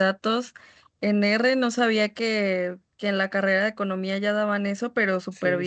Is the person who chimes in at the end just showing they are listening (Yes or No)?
Yes